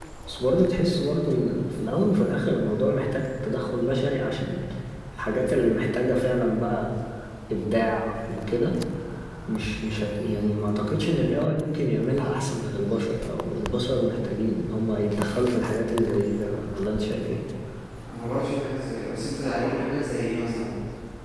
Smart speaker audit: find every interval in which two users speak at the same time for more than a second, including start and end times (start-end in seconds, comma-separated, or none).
none